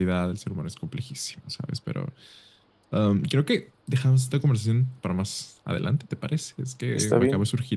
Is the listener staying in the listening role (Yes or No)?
Yes